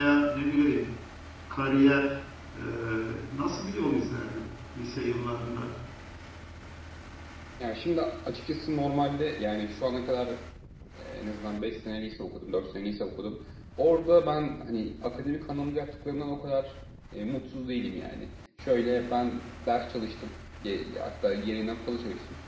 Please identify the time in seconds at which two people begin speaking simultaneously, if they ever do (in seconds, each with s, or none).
none